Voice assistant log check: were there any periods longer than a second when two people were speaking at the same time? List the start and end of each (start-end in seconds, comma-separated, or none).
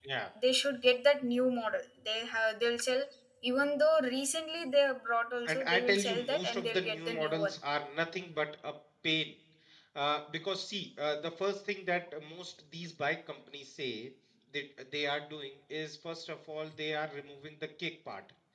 5.5-7.5